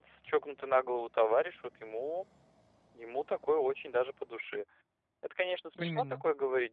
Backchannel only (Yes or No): Yes